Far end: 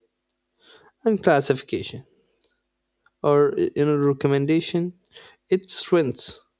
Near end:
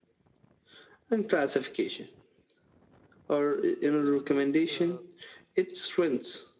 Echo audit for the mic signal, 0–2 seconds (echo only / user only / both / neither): echo only